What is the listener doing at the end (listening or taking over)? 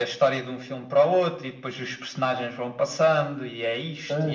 taking over